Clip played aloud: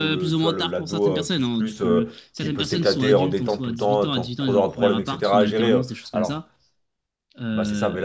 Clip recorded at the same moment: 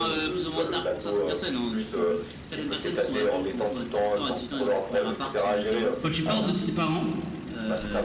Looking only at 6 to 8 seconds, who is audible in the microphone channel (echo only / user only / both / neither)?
both